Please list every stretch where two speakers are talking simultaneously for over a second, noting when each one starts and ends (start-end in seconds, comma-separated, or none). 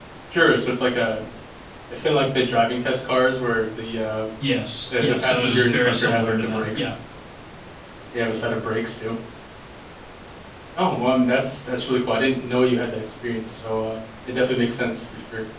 4.9-6.9